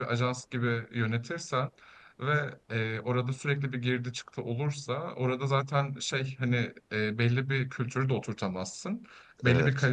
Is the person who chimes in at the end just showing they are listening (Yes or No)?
Yes